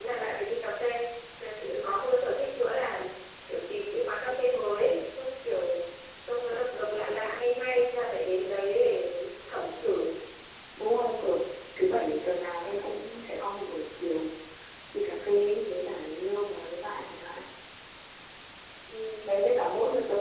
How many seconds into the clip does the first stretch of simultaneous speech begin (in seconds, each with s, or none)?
none